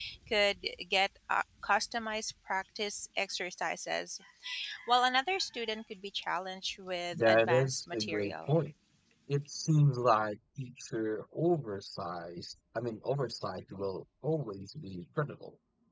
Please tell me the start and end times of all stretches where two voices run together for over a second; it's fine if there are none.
7.1-8.5

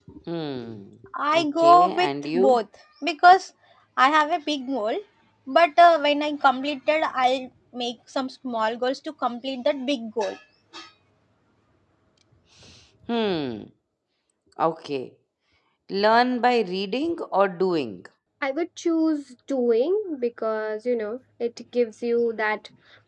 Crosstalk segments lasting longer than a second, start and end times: 1.3-2.6

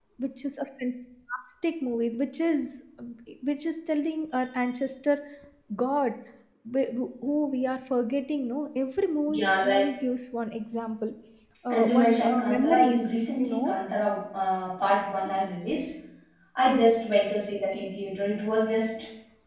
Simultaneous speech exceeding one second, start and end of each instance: 11.8-13.0

